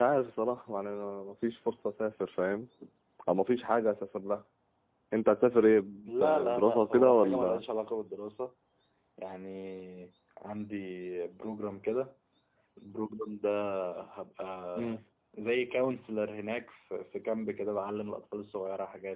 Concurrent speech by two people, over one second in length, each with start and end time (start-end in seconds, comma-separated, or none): 6.1-7.6